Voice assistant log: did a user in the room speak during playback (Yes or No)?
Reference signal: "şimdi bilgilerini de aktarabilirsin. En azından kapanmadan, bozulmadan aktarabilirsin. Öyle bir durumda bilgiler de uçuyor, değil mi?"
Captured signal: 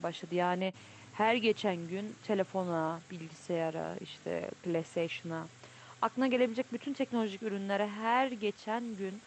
Yes